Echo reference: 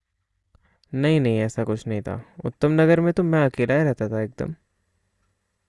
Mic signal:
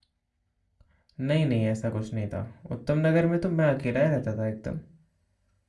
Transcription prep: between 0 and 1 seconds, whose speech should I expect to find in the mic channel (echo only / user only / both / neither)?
neither